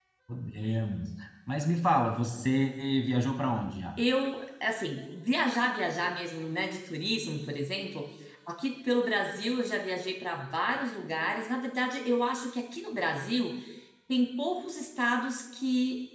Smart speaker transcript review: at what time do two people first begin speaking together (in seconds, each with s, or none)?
none